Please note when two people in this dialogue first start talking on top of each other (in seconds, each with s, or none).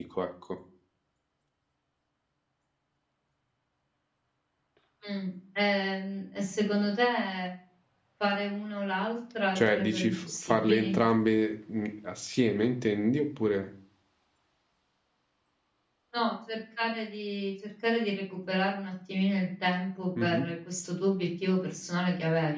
9.6 s